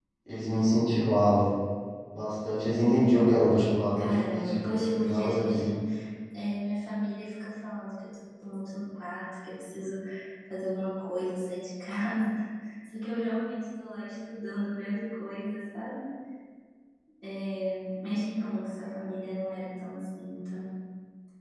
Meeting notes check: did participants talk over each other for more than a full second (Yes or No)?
Yes